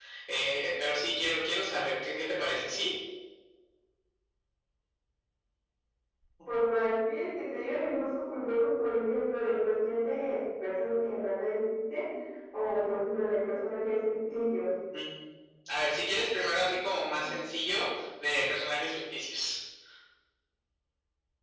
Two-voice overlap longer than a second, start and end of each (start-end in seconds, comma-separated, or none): none